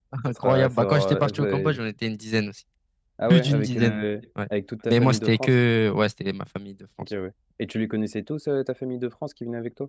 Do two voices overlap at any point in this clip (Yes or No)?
Yes